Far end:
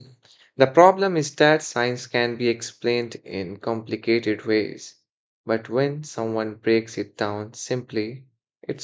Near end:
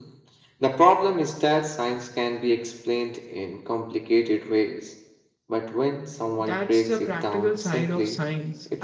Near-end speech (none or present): present